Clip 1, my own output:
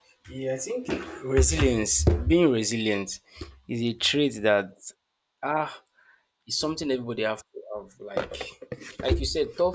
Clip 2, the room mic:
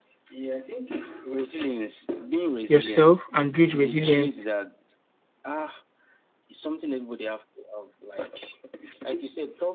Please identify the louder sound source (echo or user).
user